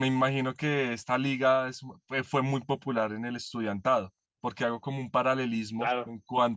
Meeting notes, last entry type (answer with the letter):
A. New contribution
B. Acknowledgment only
B